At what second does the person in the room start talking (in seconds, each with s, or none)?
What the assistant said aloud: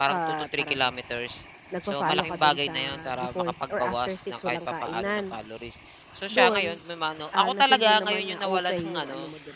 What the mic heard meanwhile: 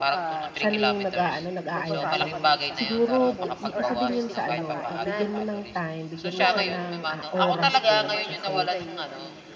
0.5 s